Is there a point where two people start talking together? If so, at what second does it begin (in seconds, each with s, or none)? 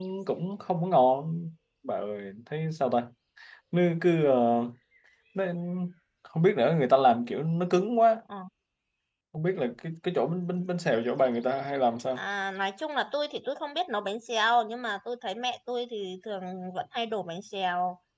none